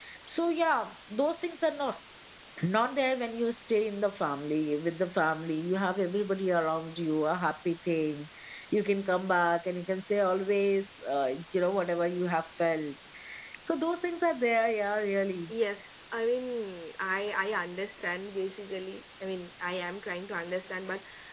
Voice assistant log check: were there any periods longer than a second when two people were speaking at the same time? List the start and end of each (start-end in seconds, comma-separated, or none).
none